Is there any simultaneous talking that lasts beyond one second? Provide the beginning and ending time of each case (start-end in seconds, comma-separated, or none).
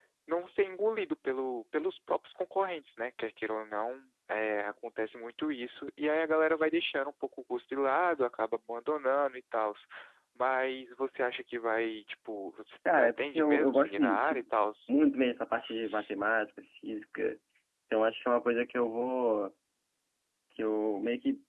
13.0-14.4